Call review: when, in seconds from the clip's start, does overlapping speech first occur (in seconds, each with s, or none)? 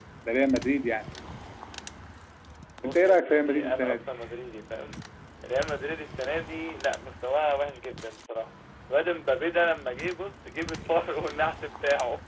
2.8 s